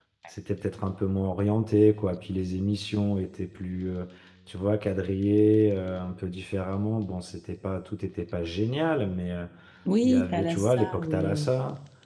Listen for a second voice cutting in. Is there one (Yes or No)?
Yes